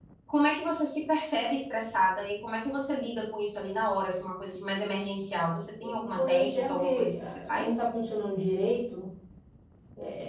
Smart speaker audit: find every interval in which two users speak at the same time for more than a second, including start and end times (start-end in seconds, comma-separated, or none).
5.8-7.8